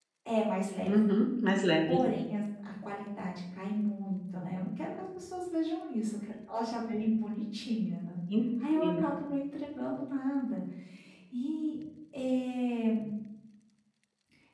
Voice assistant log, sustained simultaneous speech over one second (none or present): none